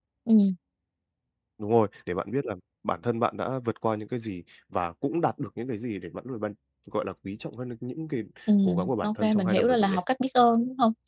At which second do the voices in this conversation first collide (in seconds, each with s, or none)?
8.7 s